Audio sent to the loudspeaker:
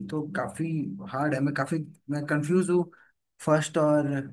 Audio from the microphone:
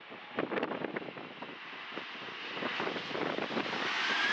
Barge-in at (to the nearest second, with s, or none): none